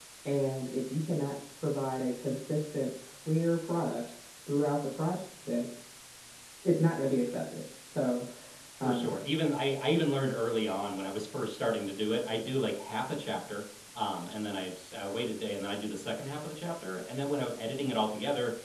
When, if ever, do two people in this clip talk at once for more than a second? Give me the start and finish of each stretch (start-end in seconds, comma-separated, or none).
none